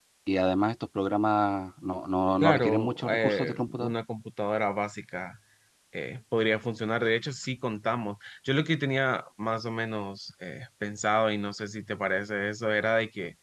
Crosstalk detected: Yes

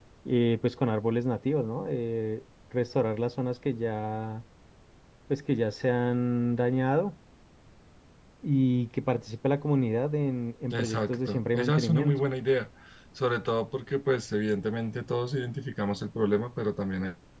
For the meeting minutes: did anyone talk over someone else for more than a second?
Yes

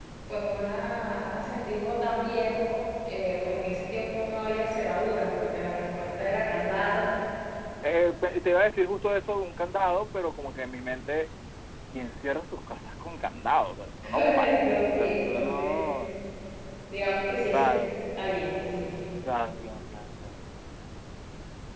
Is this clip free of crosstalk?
No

